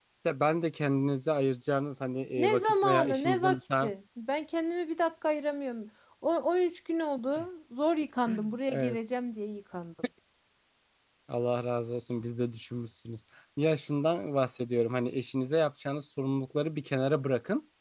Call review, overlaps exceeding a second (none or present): present